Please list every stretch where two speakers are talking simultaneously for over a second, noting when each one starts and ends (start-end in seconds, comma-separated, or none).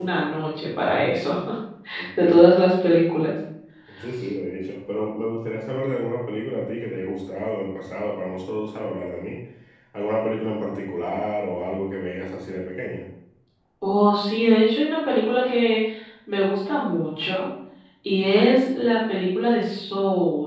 none